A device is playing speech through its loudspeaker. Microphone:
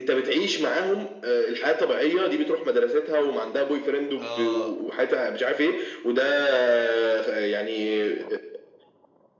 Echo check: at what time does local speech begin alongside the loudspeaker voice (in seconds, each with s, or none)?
4.2 s